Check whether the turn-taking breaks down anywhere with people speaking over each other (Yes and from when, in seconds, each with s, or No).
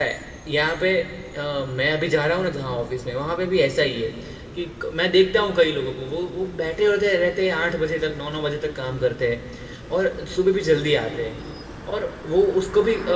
No